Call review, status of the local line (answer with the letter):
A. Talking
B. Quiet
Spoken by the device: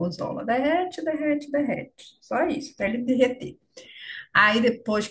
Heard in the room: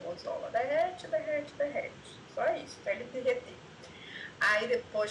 B